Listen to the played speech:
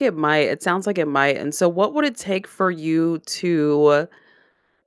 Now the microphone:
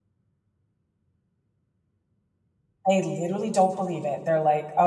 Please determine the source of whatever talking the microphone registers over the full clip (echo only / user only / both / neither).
user only